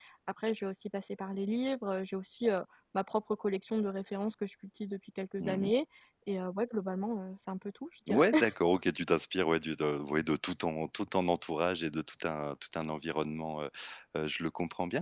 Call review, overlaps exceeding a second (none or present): none